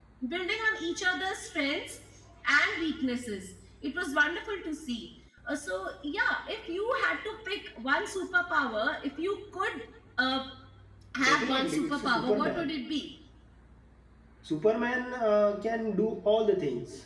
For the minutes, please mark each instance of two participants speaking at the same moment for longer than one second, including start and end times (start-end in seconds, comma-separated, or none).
11.2-12.7